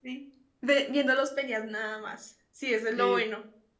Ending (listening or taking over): taking over